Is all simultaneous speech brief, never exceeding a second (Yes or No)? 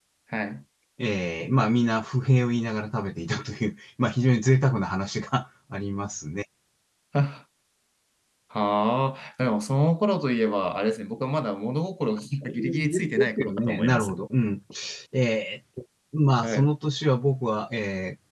No